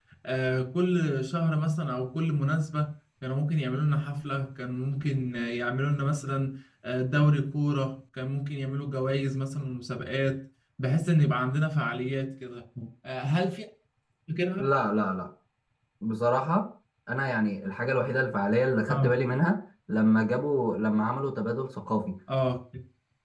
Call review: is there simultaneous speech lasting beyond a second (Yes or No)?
No